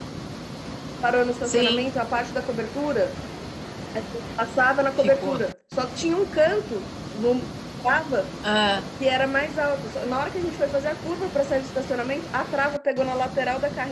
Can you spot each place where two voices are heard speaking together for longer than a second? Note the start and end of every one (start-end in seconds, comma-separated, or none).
none